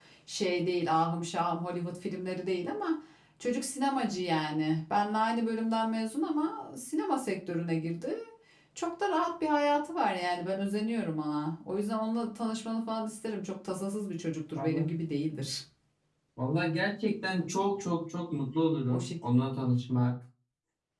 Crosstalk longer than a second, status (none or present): none